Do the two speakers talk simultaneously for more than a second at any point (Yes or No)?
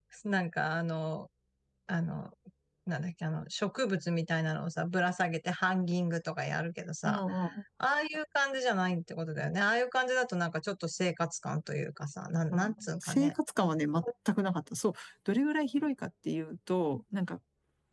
No